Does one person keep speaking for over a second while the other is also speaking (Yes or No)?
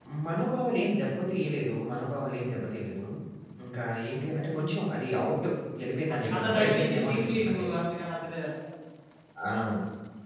Yes